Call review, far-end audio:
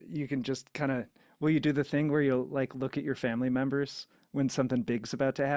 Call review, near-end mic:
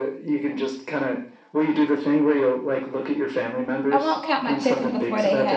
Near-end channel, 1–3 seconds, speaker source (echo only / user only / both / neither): echo only